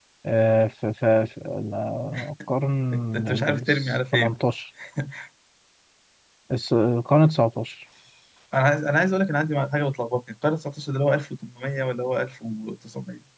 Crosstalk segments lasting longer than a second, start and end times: 2.9-4.3

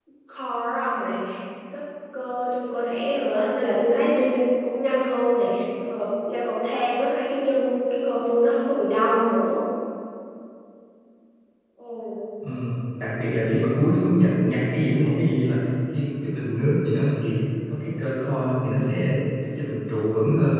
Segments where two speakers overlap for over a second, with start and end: none

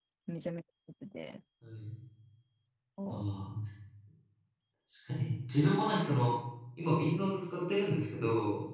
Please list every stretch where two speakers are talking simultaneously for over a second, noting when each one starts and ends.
none

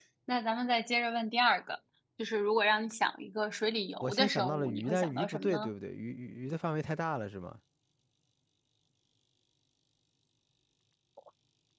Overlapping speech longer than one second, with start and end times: 4.0-5.7

